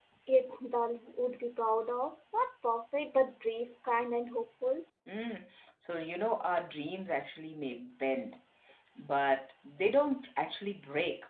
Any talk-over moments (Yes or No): No